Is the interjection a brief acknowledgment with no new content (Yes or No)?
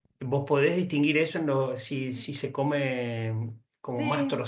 Yes